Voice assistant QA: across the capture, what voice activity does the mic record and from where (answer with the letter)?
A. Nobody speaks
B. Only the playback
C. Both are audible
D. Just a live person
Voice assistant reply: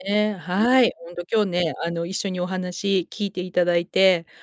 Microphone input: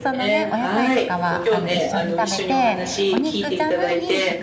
C